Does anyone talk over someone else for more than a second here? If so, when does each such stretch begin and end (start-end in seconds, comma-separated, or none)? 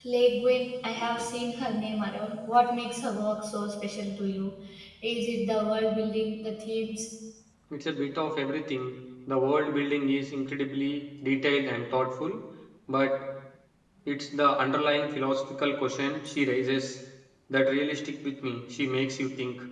none